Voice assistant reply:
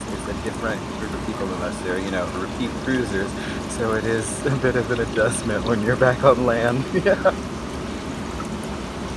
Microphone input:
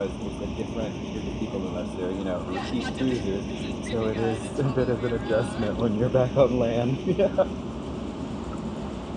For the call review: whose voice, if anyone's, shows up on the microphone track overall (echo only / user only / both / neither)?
both